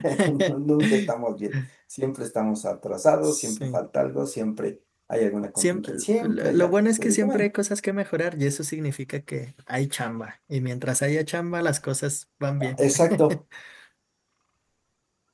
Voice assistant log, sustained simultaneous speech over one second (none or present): present